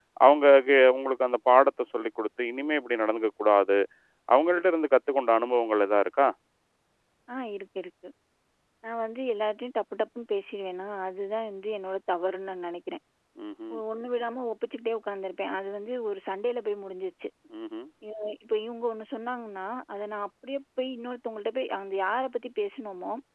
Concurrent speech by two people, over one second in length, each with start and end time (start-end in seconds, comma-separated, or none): none